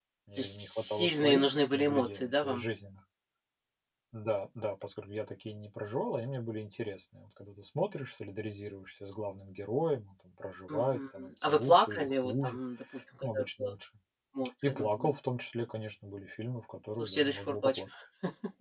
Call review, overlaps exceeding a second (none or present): present